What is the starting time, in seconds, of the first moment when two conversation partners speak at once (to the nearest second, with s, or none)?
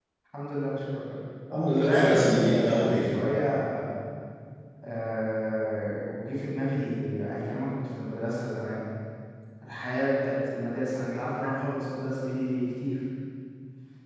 2 s